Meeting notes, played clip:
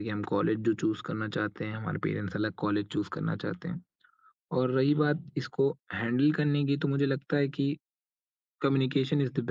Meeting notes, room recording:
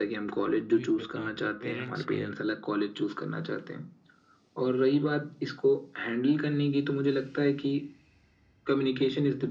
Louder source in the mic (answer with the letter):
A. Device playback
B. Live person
A